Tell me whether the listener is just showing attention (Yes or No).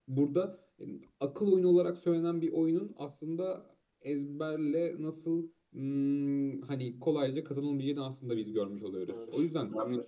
No